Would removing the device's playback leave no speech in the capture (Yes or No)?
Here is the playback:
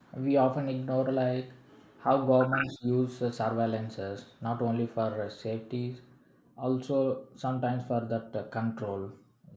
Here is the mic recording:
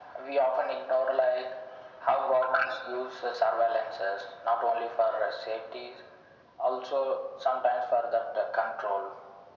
Yes